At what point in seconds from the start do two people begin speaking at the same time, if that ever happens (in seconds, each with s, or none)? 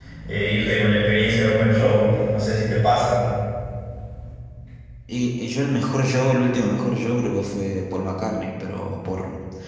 none